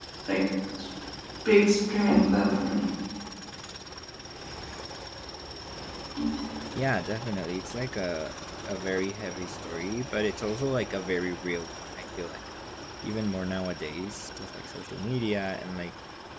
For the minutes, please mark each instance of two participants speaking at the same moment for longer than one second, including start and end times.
none

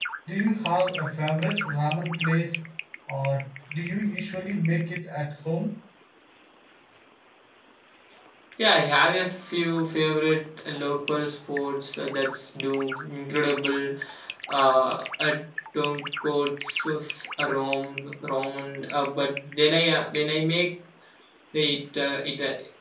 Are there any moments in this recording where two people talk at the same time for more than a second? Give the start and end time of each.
none

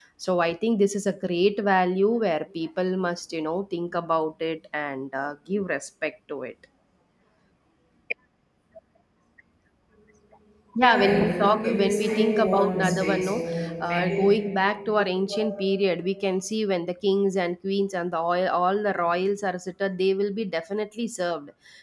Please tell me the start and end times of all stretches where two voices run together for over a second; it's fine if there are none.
10.8-13.4

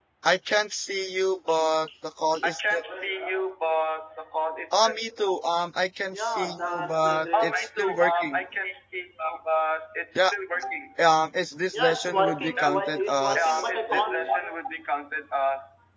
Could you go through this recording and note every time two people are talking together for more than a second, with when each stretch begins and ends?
6.1-8.4, 11.7-14.0

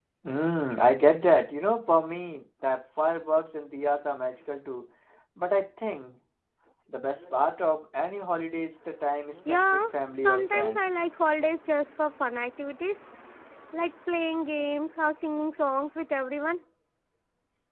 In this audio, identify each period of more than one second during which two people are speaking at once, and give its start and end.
9.5-10.9

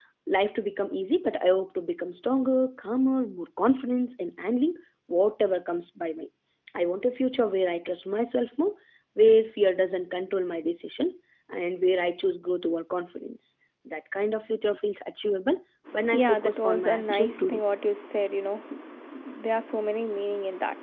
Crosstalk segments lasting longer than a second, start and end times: 16.1-17.6

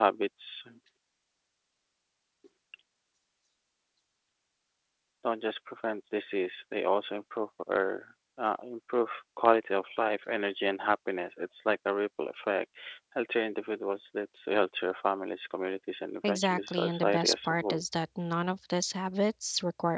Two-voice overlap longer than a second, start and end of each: 16.2-17.8

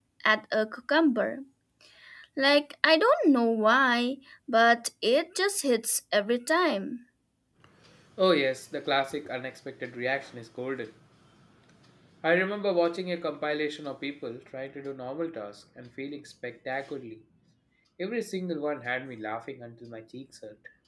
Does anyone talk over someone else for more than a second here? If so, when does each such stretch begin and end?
none

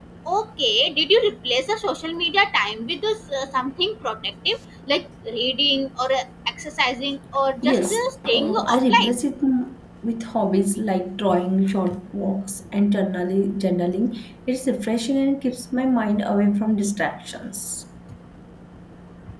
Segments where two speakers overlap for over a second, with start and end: 7.6-9.2

